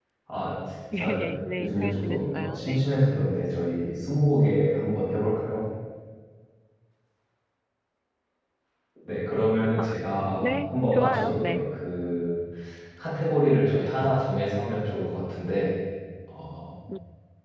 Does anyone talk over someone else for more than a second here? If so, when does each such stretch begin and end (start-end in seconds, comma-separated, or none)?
1.6-2.9, 10.4-11.6